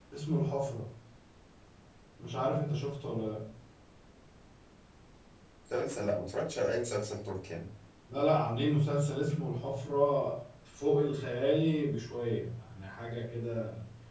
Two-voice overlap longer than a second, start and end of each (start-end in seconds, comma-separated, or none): none